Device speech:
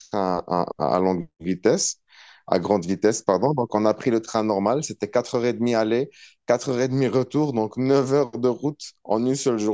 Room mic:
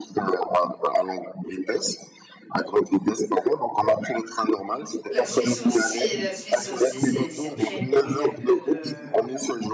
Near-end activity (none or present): present